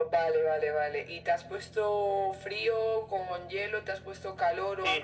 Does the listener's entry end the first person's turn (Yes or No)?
Yes